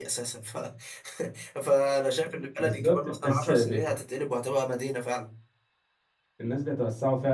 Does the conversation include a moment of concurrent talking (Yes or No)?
Yes